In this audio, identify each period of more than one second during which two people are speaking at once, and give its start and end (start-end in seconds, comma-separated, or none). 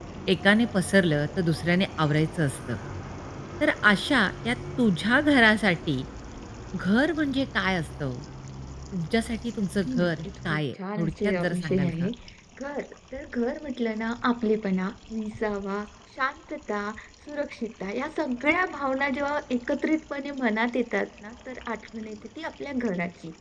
9.6-12.1